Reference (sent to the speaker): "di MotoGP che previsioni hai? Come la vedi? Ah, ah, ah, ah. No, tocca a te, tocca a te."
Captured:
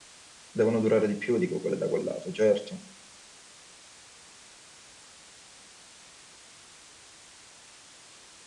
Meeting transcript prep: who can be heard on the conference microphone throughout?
user only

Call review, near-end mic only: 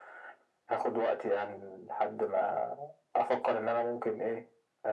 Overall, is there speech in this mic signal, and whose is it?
echo only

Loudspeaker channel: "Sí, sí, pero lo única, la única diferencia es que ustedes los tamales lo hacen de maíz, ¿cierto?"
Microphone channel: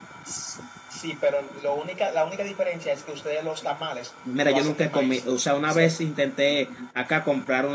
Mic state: both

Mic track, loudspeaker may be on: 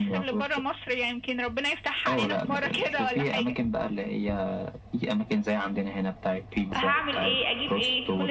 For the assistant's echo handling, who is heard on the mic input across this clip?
both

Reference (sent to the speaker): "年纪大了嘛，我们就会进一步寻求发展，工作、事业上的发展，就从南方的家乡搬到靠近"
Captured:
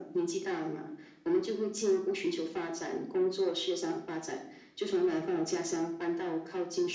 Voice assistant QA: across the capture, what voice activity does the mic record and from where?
echo only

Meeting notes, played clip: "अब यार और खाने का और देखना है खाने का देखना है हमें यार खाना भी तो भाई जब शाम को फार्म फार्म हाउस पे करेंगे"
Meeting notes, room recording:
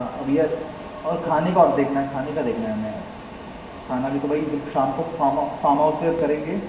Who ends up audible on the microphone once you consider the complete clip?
echo only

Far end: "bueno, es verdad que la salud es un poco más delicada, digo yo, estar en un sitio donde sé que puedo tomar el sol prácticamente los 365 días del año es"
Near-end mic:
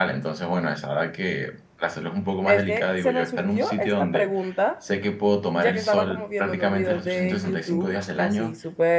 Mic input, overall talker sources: both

